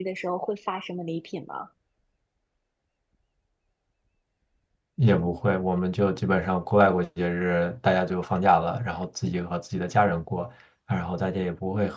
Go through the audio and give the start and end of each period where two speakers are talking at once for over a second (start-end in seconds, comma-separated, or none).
none